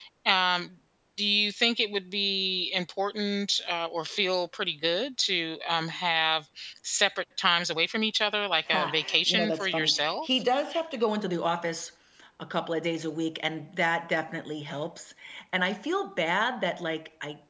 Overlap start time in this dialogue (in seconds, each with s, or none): 8.7 s